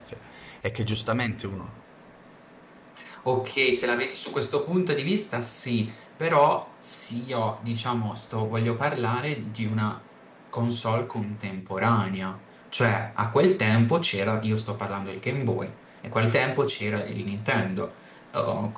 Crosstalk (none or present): none